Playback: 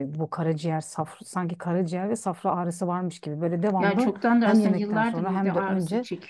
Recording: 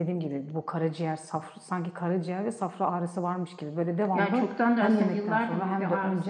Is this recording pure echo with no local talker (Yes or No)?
Yes